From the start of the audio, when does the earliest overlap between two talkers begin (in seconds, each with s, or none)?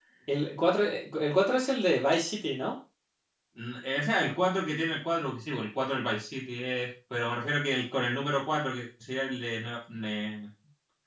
none